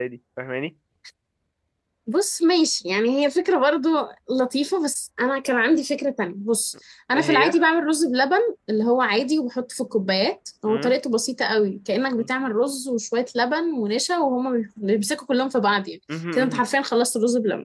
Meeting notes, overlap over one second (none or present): none